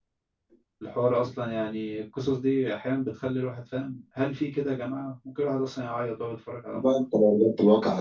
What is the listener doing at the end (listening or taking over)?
taking over